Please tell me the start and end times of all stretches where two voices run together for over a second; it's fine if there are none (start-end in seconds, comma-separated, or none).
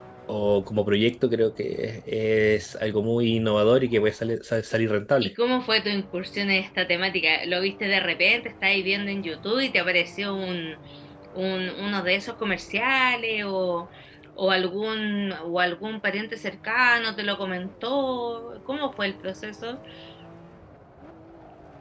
none